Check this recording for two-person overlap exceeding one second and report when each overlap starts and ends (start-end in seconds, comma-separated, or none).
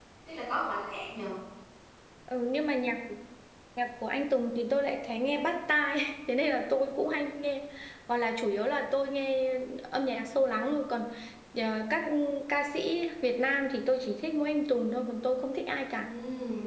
none